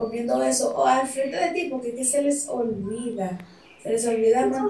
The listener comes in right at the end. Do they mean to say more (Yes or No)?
Yes